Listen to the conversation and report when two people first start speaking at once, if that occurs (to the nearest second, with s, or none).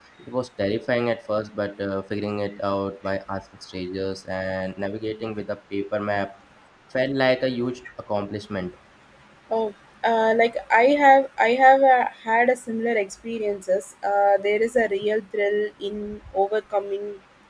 none